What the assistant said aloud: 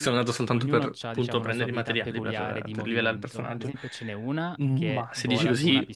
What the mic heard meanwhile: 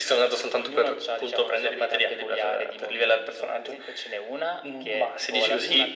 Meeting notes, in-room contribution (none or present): none